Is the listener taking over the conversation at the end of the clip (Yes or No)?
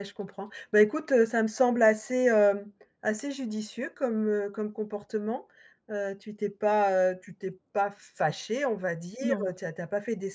No